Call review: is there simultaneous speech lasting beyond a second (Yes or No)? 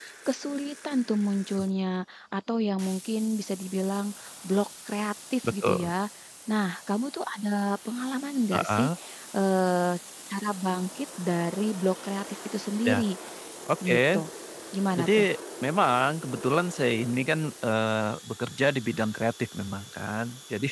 No